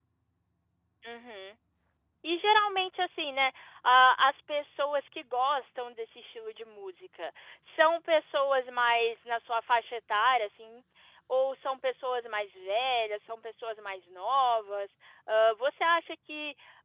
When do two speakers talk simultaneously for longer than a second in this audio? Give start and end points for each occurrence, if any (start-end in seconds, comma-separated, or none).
none